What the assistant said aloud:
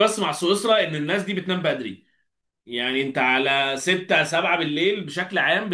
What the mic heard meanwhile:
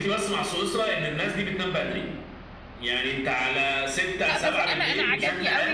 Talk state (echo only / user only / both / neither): both